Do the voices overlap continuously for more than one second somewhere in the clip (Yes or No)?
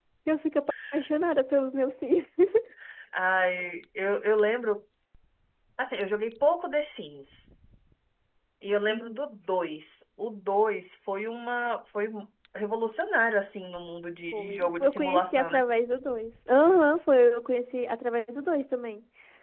Yes